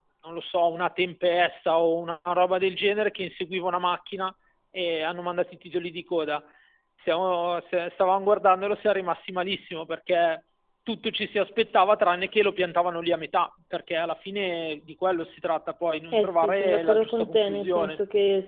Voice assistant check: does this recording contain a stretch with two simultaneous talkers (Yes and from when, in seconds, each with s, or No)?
Yes, from 16.1 s